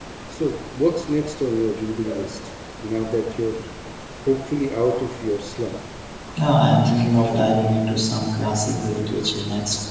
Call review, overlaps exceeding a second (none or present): none